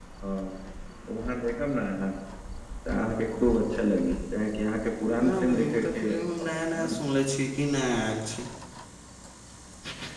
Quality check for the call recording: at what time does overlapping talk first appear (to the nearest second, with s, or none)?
5 s